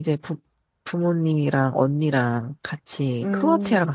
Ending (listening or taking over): taking over